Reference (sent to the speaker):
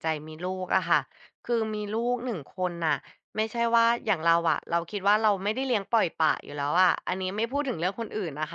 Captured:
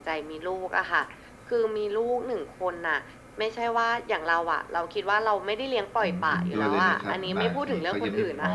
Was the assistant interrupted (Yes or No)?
Yes